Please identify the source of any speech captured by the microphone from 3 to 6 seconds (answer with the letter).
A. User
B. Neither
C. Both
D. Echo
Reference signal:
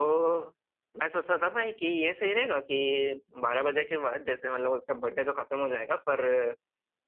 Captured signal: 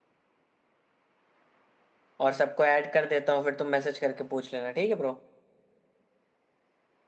A